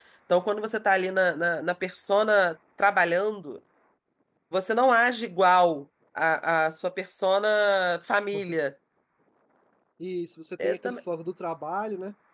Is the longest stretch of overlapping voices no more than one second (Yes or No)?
Yes